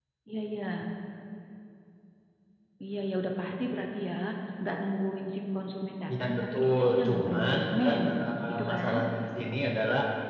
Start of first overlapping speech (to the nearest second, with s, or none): 6 s